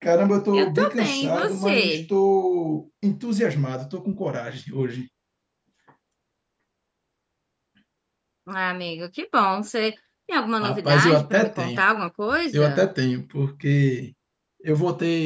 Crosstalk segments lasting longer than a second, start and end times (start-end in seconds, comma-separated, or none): 0.5-2.0, 10.6-11.8